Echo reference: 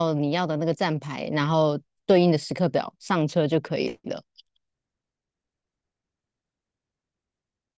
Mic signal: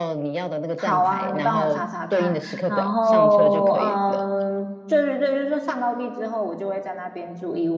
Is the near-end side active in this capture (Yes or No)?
Yes